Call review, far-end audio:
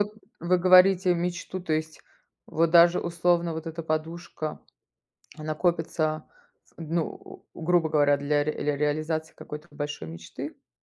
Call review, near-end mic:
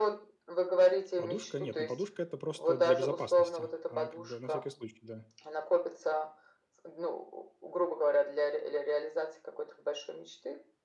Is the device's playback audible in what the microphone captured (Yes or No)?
Yes